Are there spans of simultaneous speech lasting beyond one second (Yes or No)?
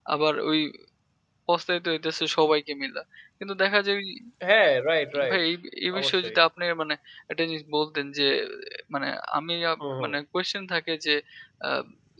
No